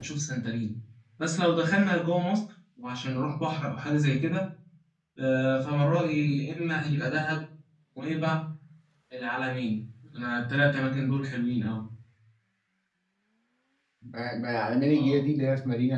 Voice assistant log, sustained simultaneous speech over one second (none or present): none